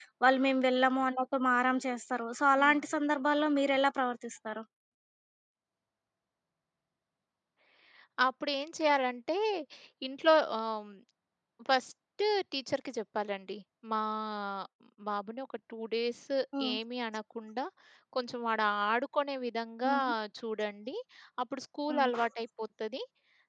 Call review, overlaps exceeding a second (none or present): none